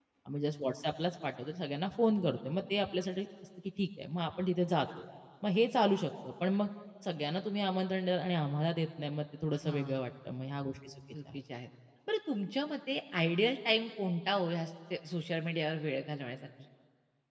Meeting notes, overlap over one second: none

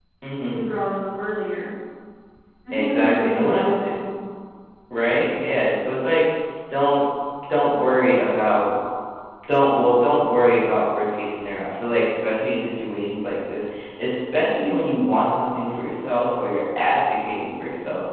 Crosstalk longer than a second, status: present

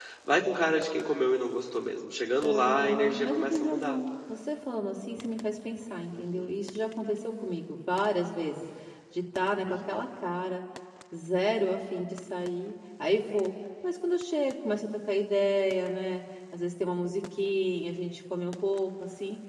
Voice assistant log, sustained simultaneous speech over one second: present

